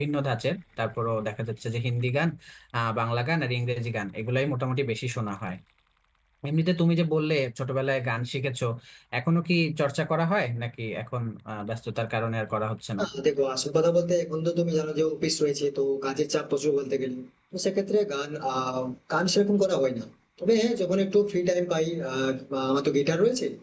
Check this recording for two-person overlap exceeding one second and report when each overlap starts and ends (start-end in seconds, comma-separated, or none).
none